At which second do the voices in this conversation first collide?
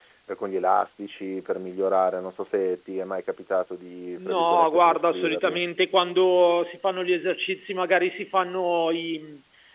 4.2 s

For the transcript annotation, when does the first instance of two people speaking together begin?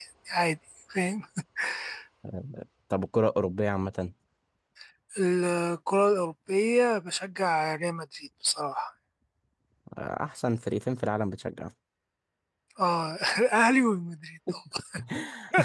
none

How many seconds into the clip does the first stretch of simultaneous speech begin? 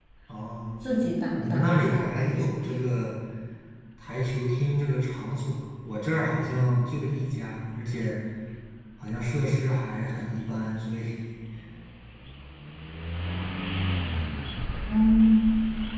1.4 s

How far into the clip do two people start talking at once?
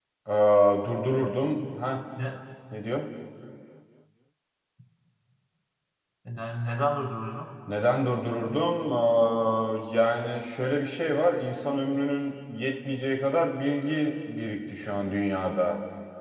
none

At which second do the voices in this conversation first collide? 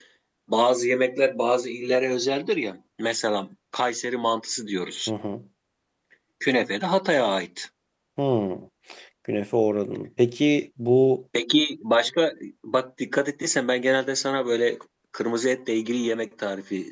none

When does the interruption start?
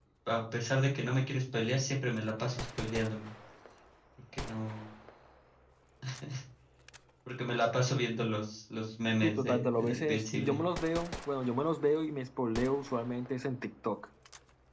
9.2 s

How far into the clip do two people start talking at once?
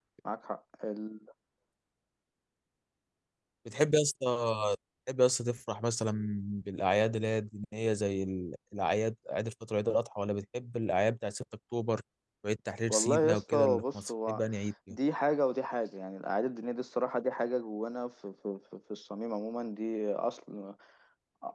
12.9 s

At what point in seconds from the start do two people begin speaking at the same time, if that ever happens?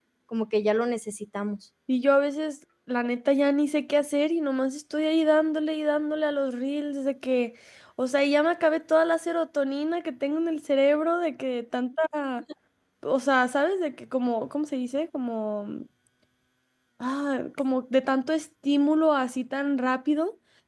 none

